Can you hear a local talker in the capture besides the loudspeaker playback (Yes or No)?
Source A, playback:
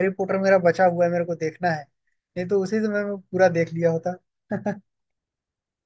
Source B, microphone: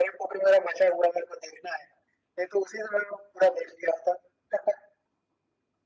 No